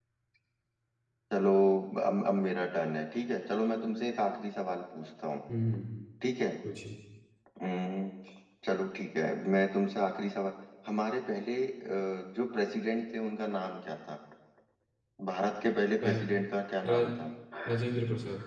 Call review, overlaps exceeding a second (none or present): none